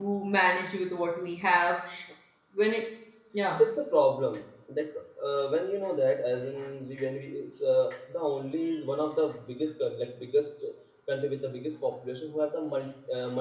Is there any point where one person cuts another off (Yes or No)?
No